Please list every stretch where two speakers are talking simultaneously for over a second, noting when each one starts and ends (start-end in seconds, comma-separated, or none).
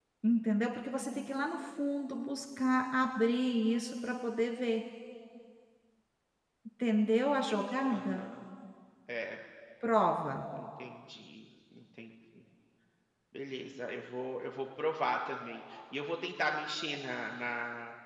none